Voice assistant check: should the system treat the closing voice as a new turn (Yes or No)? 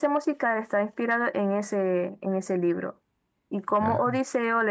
No